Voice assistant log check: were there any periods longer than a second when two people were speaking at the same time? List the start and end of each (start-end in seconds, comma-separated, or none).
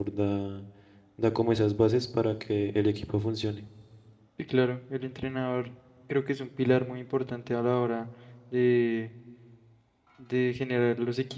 none